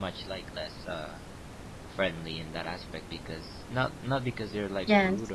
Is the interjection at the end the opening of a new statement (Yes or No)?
No